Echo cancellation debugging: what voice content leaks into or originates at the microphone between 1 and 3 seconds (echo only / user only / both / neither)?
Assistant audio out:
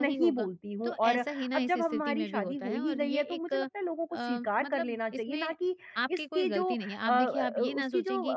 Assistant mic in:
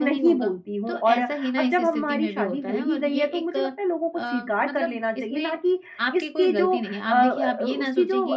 echo only